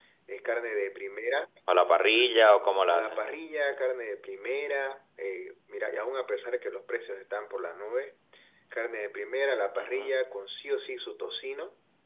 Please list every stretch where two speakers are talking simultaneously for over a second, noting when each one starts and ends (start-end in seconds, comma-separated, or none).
none